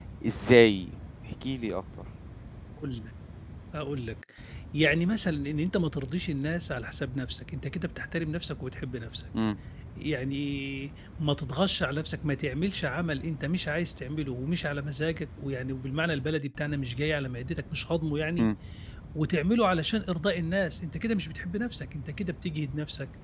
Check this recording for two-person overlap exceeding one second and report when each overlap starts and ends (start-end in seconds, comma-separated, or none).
none